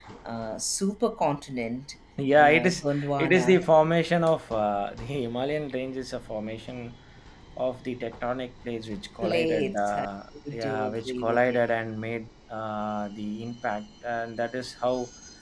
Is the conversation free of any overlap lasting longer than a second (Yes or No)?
No